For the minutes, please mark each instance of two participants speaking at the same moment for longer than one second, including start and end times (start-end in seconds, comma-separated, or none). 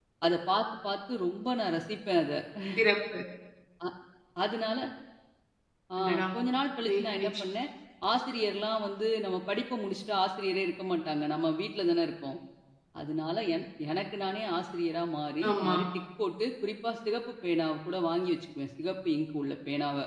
none